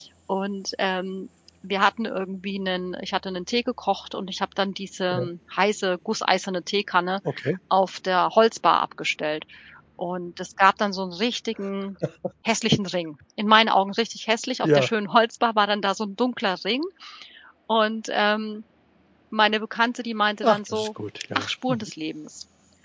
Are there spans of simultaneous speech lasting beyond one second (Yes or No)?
No